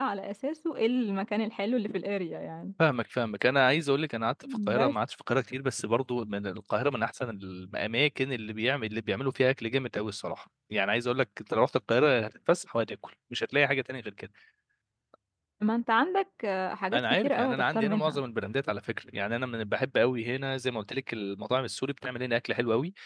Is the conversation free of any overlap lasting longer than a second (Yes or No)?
No